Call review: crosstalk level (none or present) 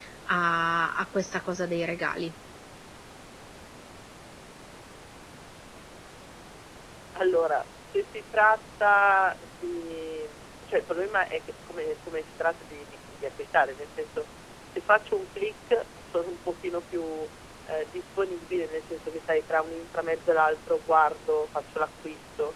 none